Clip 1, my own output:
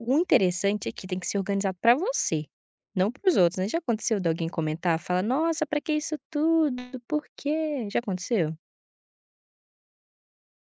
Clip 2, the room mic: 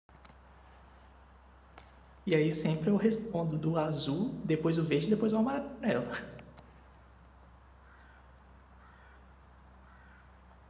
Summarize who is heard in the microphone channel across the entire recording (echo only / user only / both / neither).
user only